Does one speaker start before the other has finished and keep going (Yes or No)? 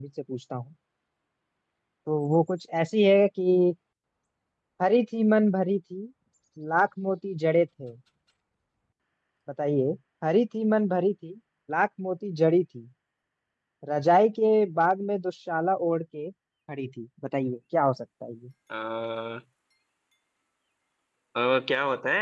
No